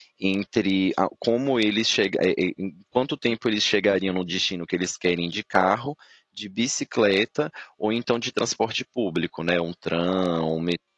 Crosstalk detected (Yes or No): No